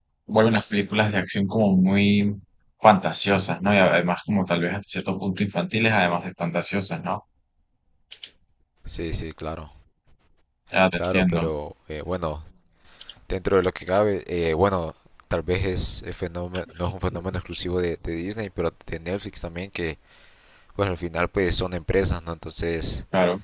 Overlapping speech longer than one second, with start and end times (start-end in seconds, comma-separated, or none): none